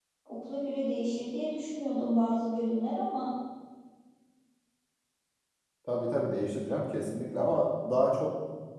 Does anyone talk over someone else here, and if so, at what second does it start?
none

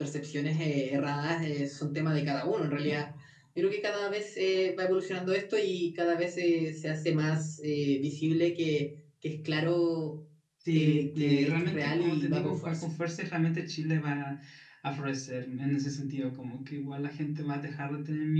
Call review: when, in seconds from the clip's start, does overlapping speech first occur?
11 s

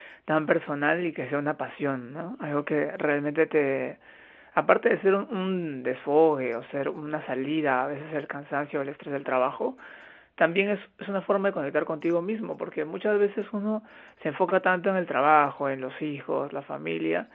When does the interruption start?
none

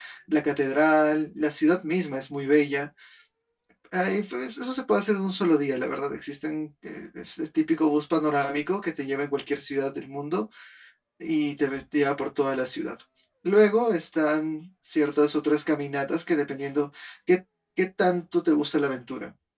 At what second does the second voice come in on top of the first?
none

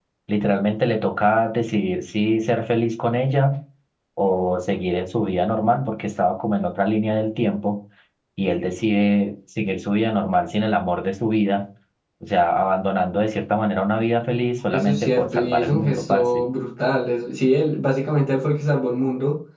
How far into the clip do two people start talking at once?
15 s

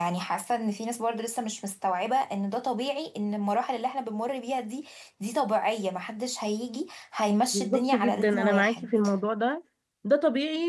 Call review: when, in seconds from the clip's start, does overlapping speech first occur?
8 s

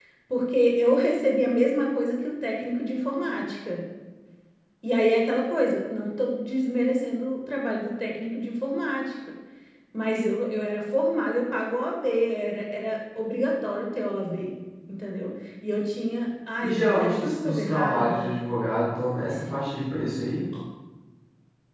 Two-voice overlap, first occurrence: 17 s

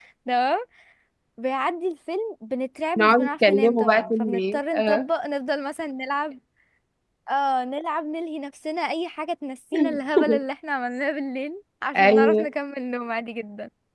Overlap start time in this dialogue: 3 s

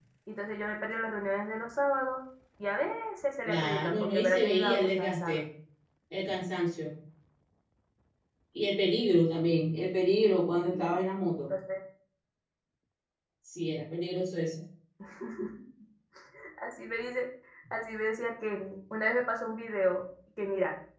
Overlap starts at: 3 s

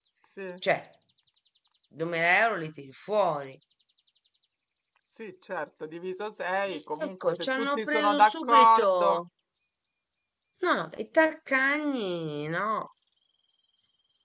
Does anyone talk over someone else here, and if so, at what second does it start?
7 s

